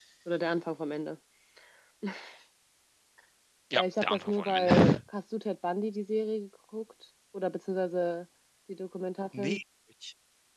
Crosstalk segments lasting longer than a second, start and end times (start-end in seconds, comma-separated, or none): 3.8-5.0